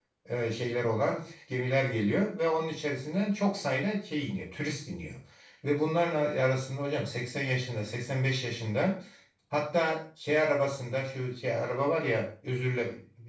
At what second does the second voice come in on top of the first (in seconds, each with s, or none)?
none